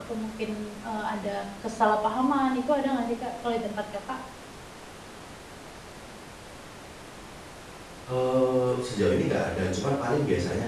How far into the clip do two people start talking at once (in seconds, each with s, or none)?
none